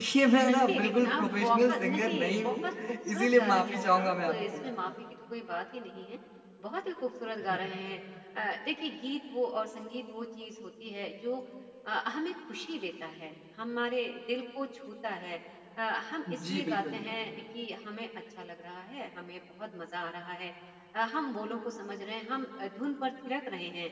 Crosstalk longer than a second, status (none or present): present